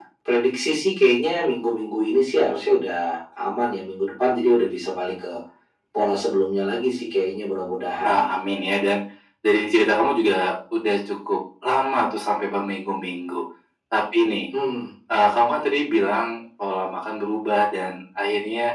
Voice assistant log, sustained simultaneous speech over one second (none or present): none